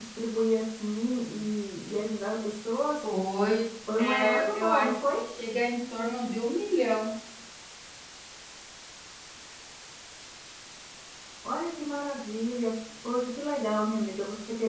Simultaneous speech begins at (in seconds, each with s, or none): 4.0 s